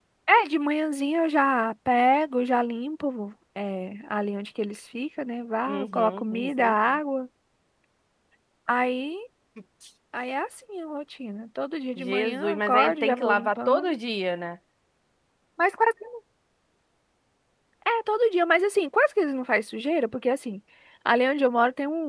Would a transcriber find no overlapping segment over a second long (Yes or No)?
No